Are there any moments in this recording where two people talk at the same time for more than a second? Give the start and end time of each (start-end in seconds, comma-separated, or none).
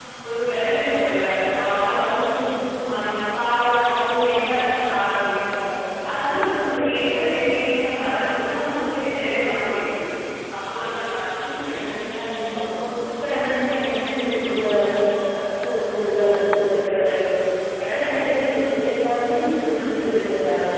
none